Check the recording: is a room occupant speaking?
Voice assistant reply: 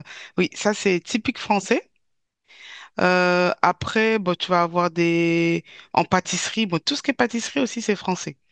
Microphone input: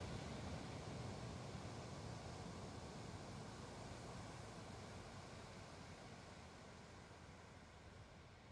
No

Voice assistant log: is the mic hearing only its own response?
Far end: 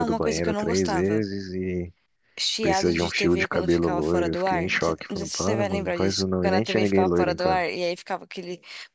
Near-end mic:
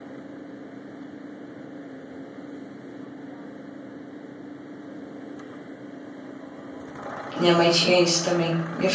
No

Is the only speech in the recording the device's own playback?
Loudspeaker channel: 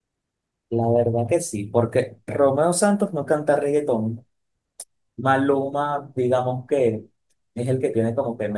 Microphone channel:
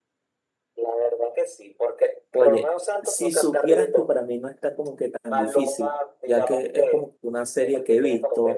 No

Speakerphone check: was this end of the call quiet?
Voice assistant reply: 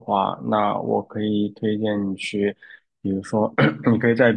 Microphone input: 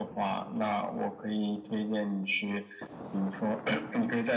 Yes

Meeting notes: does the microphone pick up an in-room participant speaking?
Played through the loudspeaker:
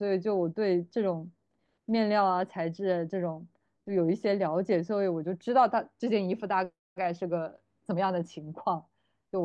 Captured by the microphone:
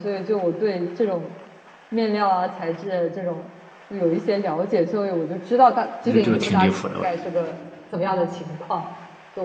Yes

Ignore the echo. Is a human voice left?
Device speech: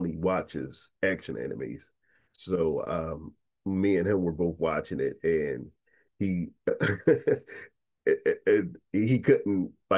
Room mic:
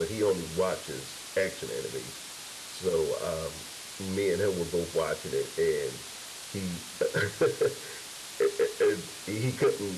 No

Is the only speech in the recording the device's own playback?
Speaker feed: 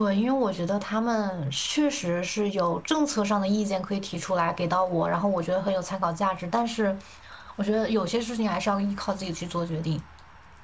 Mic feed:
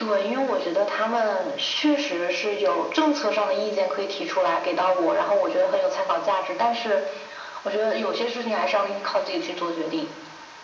Yes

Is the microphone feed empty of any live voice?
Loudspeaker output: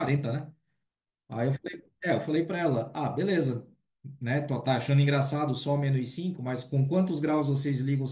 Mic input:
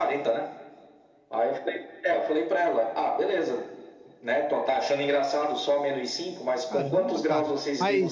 No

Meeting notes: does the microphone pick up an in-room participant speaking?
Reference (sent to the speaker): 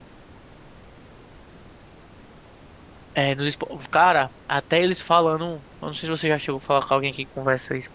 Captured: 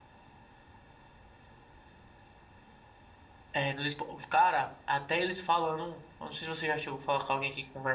No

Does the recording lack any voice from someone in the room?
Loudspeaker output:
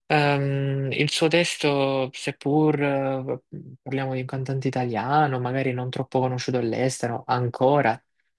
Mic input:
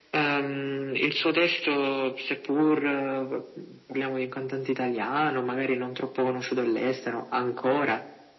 Yes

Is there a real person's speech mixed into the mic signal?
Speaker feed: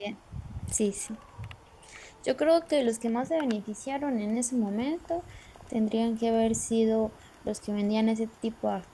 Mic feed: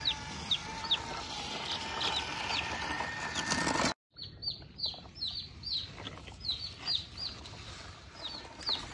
No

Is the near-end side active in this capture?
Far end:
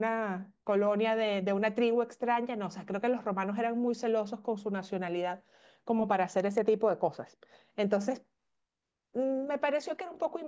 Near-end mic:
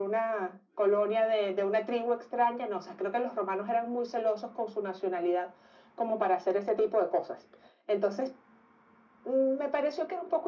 No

